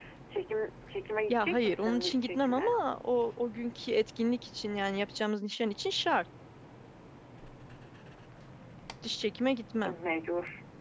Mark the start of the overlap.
1 s

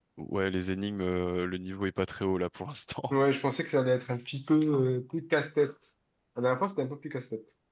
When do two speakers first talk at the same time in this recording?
none

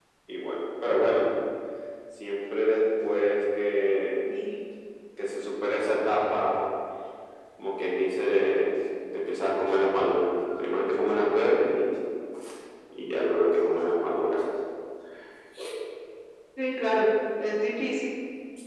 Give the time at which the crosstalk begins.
none

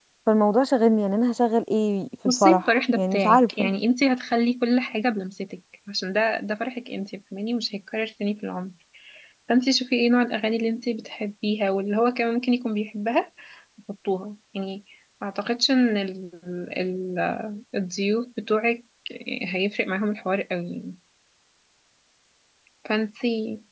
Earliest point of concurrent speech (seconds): 2 s

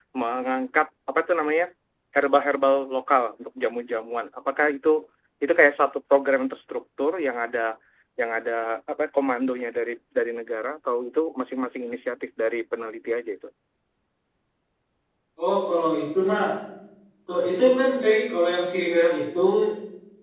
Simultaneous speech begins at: none

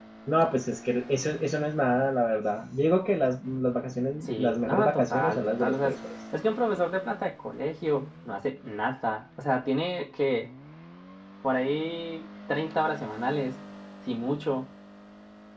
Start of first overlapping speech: 4 s

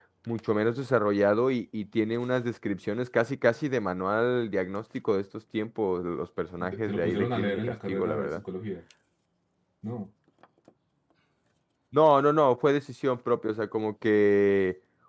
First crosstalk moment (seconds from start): 7 s

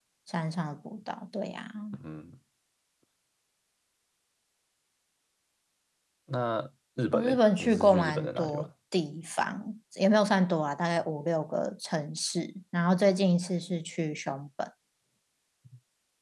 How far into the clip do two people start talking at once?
7 s

